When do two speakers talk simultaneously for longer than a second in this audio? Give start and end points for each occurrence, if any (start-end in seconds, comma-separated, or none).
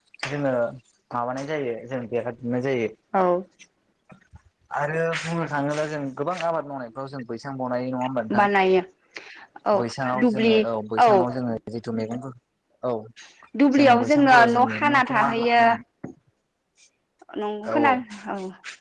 13.8-15.6